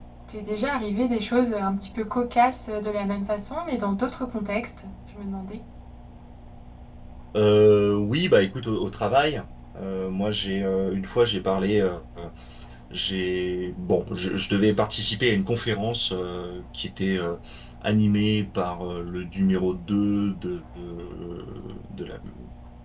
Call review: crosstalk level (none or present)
none